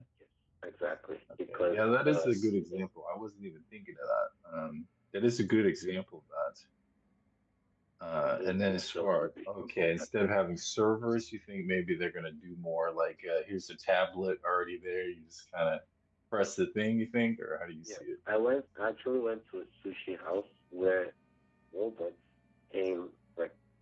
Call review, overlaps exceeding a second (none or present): present